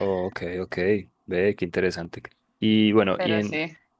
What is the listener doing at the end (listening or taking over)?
listening